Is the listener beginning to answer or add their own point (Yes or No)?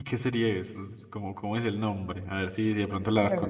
Yes